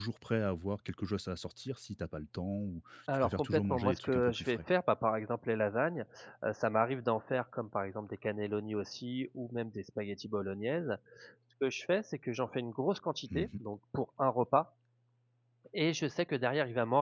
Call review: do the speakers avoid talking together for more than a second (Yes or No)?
No